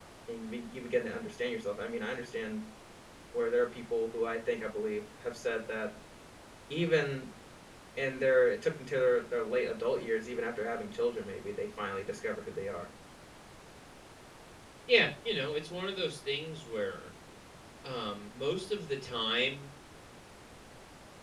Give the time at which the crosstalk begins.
none

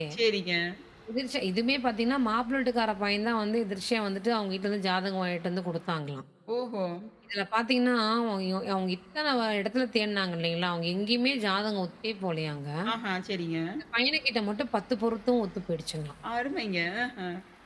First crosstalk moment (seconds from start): none

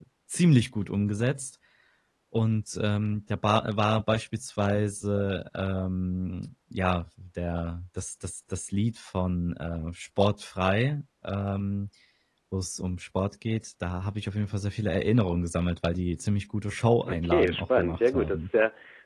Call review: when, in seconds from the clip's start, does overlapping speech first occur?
17.1 s

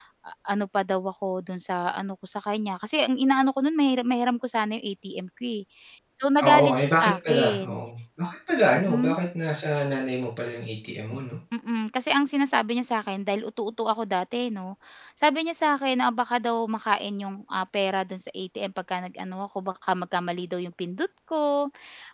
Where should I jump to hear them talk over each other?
6.5 s

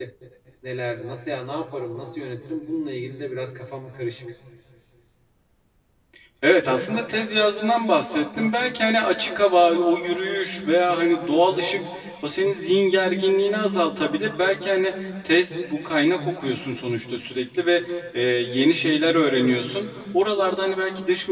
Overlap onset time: none

